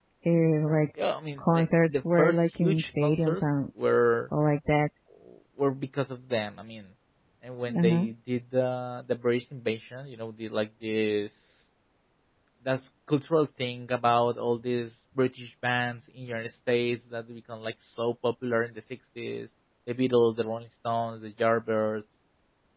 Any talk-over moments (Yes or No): Yes